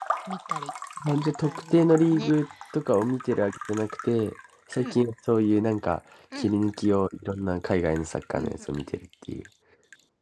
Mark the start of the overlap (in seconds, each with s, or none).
1.1 s